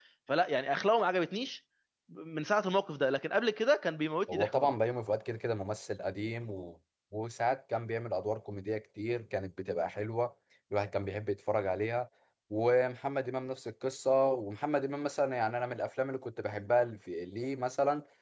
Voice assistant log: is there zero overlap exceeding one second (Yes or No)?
Yes